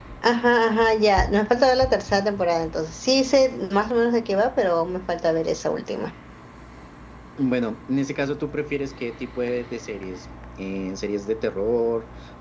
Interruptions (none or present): none